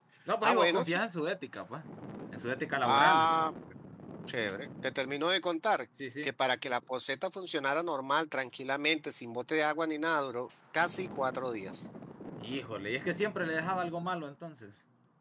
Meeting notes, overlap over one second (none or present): none